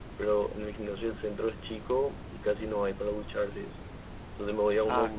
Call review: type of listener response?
listening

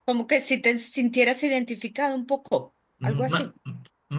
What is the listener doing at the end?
taking over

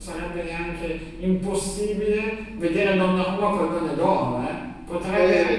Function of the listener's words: taking over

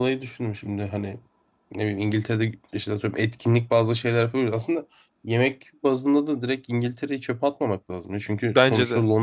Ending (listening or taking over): listening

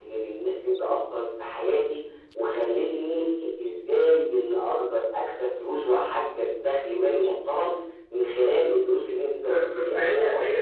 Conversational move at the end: taking over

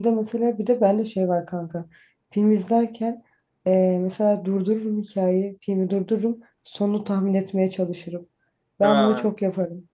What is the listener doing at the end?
listening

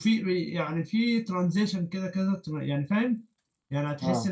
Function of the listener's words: listening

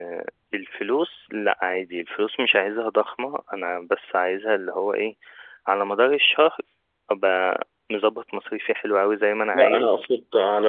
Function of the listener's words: taking over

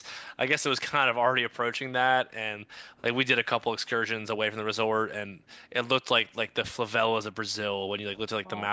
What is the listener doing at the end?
listening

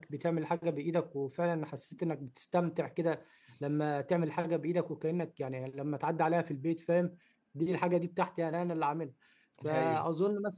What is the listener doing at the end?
listening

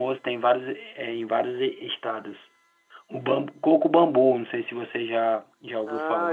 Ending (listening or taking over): taking over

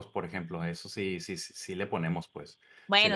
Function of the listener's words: taking over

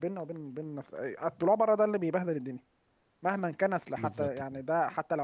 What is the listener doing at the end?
listening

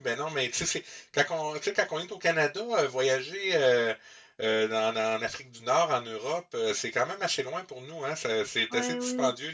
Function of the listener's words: taking over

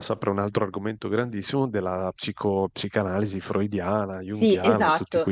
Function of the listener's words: taking over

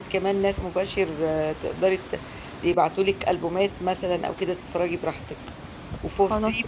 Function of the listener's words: listening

